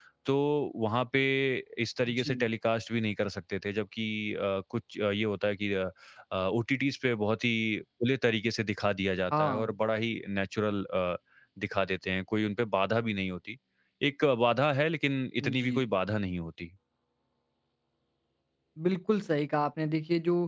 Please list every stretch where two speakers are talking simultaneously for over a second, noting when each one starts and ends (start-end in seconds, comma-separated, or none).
none